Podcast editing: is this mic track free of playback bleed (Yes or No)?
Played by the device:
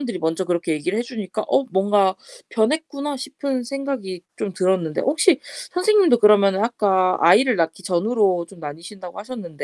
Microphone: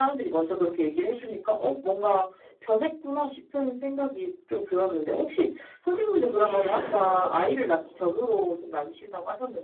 No